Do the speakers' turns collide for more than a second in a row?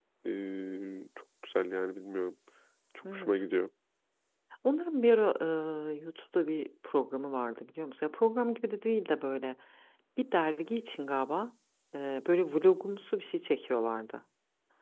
No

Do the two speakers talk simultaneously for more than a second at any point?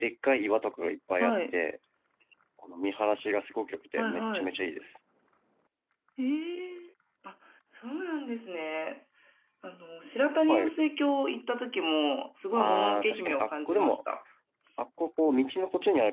Yes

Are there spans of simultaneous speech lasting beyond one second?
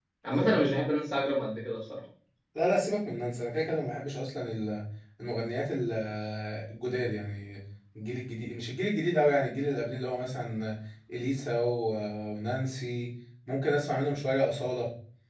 No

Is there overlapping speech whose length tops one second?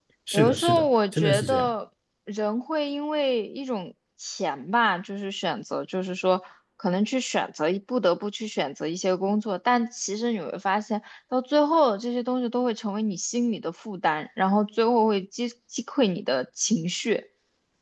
Yes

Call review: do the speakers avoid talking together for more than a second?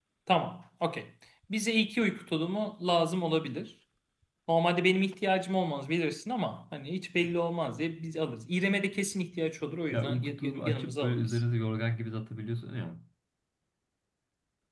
No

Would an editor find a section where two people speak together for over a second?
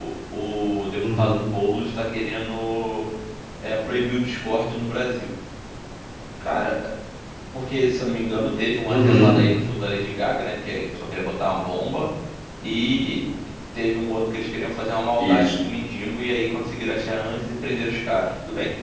No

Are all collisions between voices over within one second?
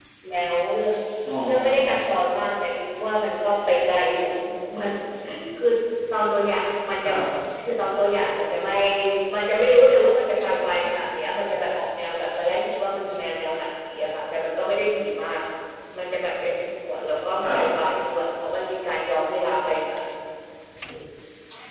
Yes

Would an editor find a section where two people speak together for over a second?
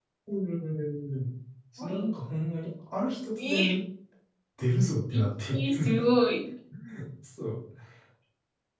No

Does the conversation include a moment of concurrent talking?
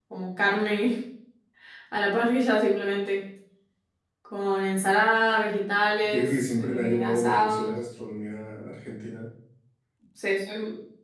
Yes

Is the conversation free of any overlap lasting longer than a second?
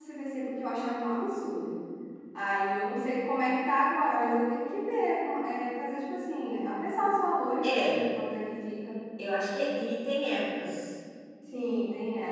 Yes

